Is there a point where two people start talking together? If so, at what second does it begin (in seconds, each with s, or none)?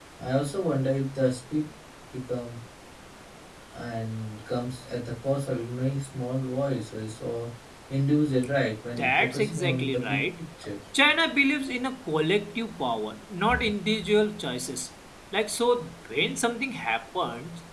9.0 s